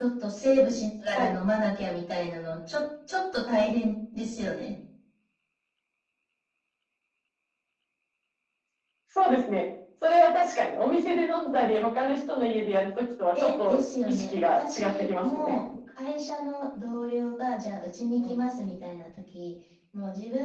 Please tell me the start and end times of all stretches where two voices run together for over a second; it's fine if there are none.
13.4-15.6

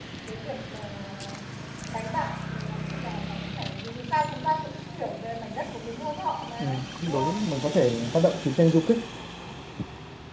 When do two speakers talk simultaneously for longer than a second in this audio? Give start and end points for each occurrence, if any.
none

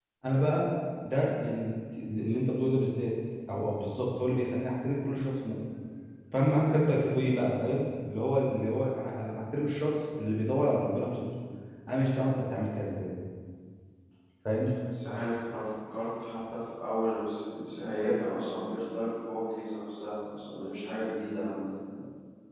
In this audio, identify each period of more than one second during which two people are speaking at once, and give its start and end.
none

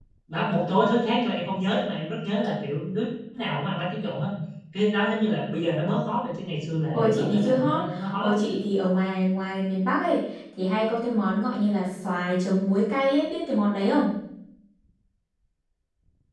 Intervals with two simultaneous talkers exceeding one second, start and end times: 6.9-8.3

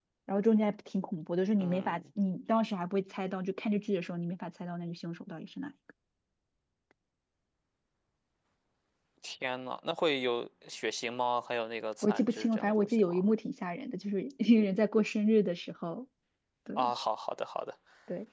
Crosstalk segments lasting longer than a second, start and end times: 12.0-13.2

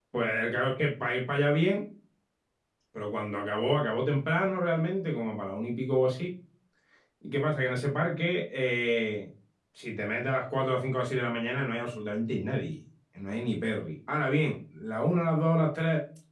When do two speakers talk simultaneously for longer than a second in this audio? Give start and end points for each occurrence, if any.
none

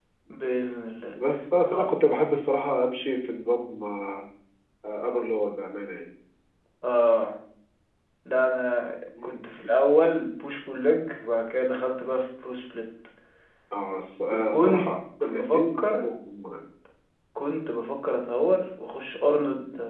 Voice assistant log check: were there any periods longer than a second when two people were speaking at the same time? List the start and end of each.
14.5-16.1

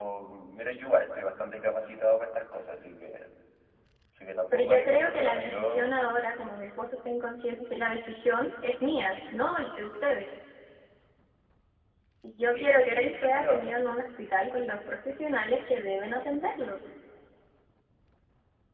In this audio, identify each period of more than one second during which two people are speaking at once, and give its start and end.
4.5-5.9, 12.4-13.8

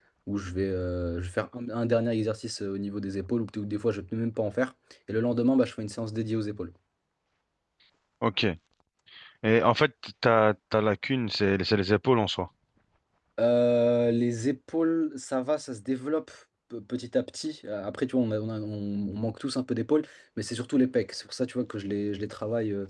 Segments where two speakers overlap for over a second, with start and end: none

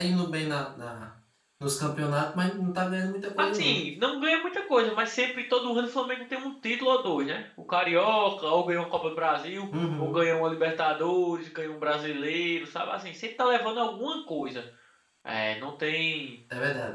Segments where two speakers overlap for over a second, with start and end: none

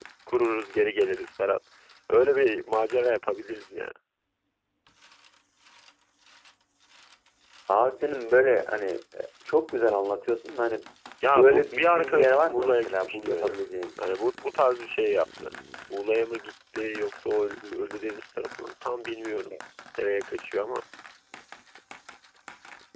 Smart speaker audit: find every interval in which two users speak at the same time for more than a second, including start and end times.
11.2-13.5

